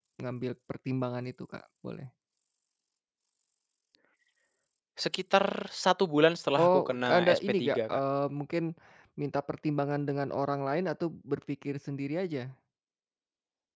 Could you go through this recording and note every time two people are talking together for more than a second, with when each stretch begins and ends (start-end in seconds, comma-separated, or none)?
6.6-8.0